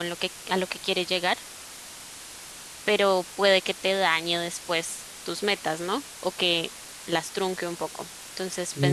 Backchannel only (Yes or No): Yes